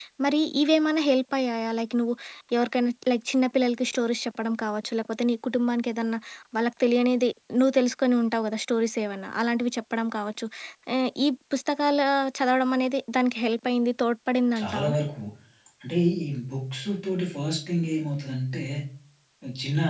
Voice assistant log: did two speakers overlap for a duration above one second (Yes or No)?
No